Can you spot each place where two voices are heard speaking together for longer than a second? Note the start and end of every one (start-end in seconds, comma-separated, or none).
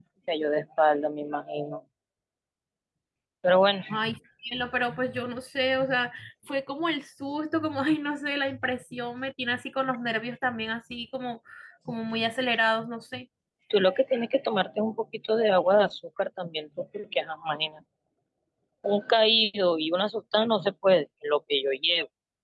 none